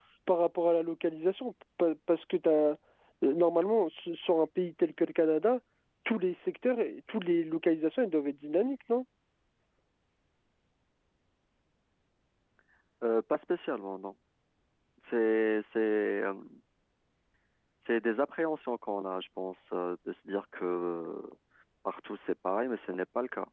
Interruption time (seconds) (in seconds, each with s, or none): none